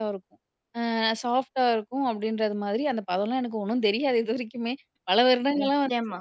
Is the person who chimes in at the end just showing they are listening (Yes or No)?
Yes